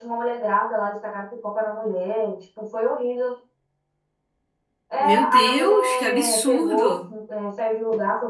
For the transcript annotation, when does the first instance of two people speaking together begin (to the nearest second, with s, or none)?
5 s